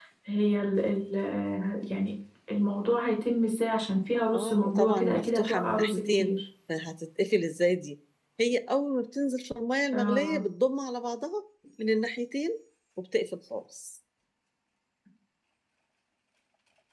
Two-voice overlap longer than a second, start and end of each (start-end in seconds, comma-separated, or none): 4.3-6.4